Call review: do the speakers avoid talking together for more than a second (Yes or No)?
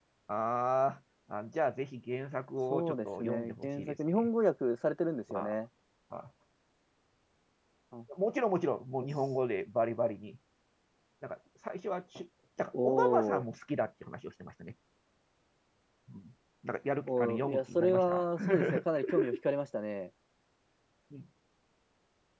No